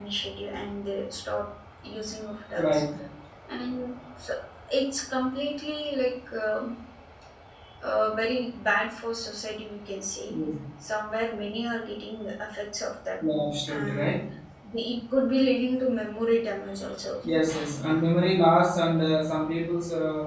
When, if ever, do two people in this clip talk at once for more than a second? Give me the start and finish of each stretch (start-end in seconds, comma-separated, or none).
none